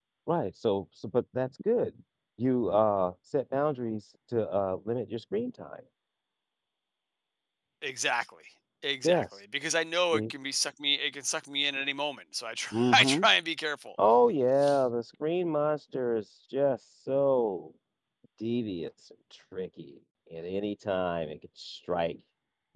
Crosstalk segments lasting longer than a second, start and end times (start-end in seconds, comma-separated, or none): none